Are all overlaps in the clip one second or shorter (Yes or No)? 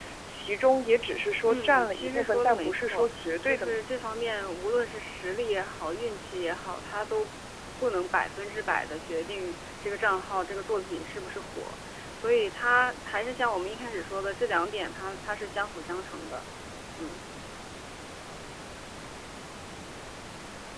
No